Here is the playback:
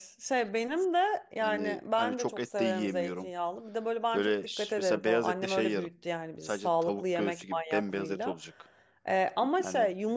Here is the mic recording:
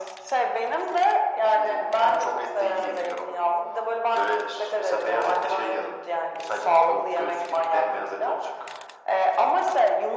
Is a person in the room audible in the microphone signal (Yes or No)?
No